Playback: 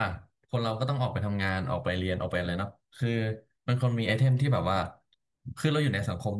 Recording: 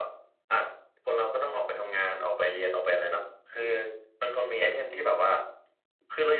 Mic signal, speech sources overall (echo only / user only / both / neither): echo only